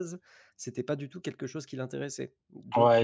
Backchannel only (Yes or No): No